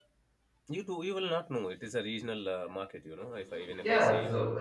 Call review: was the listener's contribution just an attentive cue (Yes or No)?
No